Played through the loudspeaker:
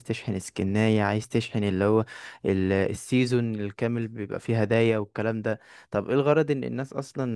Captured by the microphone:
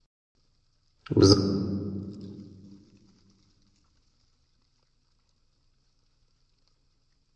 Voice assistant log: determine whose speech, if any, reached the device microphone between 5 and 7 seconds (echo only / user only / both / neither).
neither